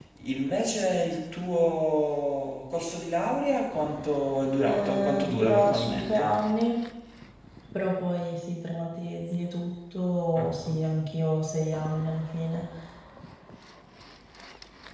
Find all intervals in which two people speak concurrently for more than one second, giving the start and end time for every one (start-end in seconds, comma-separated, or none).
4.6-6.4